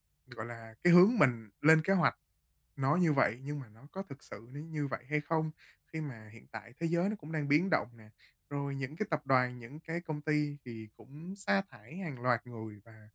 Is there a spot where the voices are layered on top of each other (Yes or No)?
No